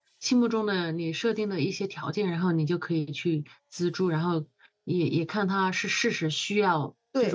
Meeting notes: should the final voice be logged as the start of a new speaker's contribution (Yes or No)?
Yes